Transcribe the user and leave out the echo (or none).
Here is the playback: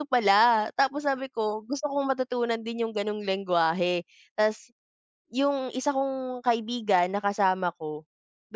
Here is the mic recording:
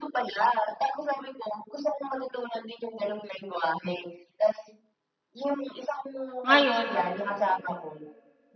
Ngayon,